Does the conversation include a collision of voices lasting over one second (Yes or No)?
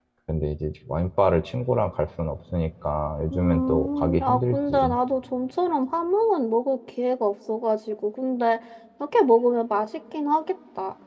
Yes